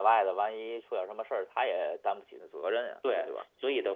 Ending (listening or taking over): taking over